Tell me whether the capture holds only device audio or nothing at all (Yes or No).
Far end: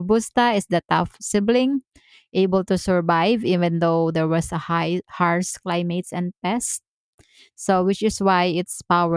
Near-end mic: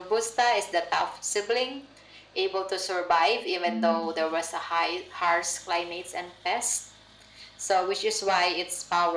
No